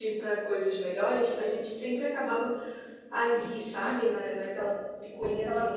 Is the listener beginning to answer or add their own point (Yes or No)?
Yes